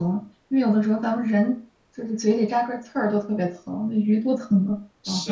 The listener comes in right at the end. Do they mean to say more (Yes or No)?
Yes